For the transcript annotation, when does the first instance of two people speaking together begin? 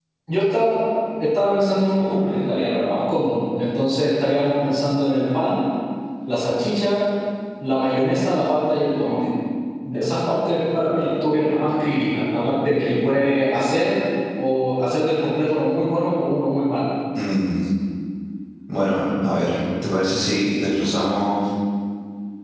none

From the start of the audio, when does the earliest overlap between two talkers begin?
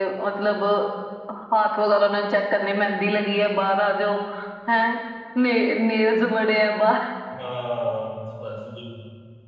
none

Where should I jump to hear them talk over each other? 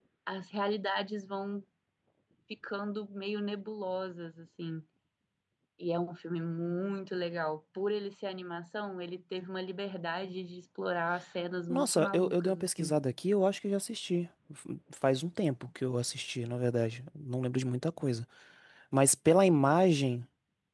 12 s

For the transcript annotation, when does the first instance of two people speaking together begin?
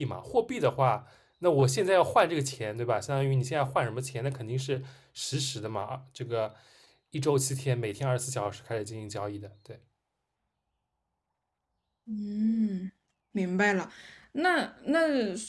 none

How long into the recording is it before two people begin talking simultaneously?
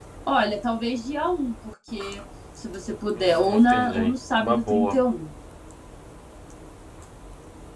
3 s

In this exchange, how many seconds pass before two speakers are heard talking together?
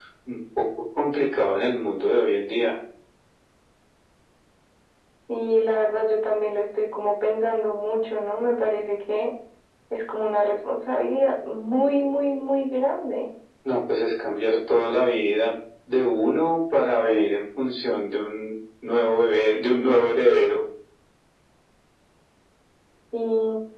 none

